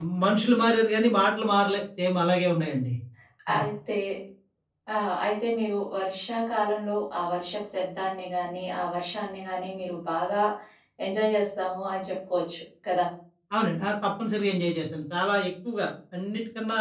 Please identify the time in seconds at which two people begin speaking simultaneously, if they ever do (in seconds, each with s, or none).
none